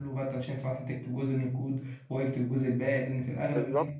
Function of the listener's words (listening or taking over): taking over